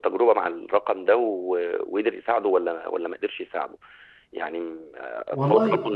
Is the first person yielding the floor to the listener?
No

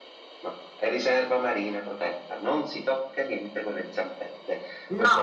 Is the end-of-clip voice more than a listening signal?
Yes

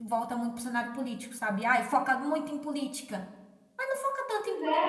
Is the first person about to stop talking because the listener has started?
No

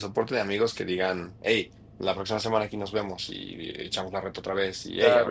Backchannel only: No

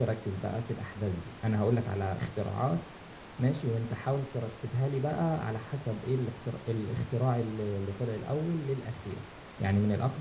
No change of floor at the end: Yes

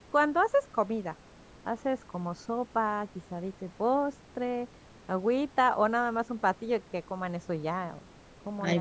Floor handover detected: Yes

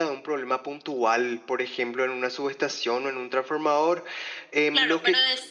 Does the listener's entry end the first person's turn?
Yes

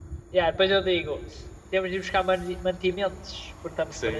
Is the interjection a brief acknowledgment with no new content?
No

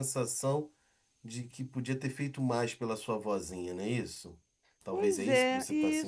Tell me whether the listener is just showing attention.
No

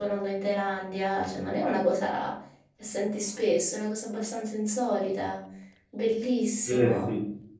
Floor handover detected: Yes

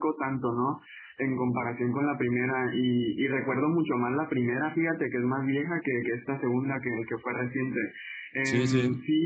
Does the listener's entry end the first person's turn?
No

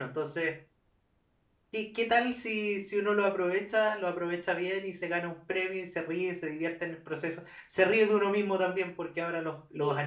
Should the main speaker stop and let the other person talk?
No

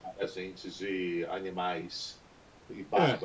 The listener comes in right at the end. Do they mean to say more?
Yes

